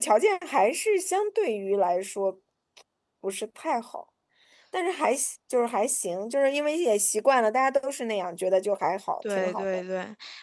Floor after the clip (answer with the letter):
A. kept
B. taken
B